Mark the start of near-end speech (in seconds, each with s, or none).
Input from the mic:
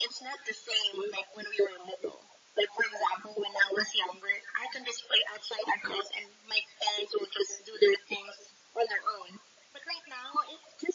none